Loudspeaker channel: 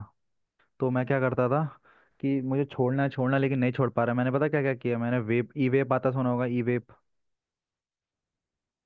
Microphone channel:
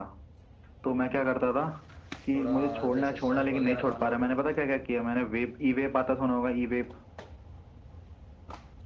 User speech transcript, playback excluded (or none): थोड़ा जैसे सौंफ वगैरह खा लो